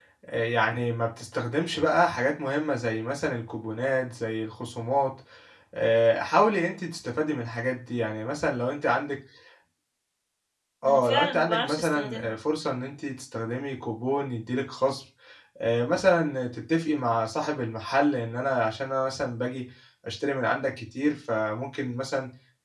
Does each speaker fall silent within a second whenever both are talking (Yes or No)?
No